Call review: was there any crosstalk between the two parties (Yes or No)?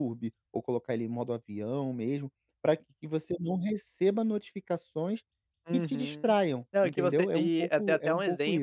Yes